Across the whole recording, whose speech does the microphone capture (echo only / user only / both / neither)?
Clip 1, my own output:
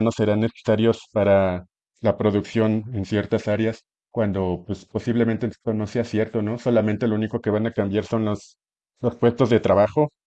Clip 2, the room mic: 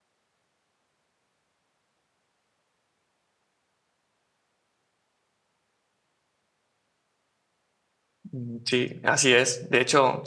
user only